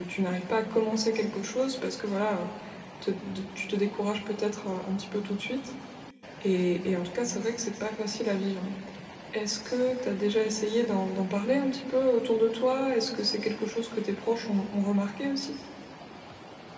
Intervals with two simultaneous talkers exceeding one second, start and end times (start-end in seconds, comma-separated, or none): none